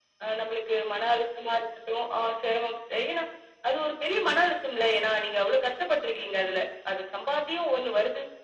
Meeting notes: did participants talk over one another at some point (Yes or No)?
No